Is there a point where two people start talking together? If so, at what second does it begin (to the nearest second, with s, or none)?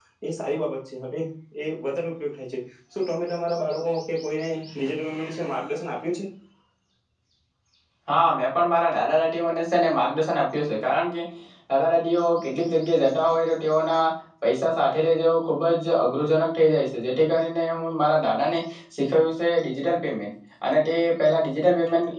none